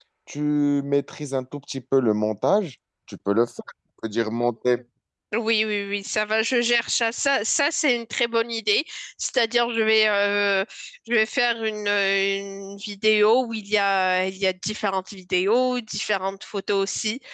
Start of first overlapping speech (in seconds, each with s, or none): none